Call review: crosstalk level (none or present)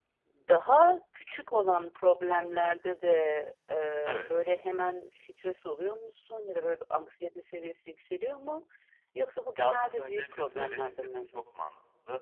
present